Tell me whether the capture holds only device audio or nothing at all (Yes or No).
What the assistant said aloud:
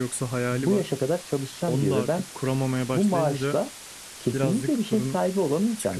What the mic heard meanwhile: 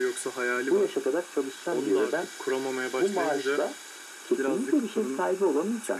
Yes